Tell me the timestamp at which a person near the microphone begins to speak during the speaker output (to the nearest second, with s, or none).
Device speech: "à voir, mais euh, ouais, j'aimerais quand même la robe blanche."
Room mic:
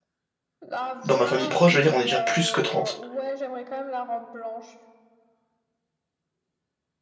1 s